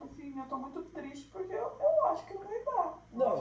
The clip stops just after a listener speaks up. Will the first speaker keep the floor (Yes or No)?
No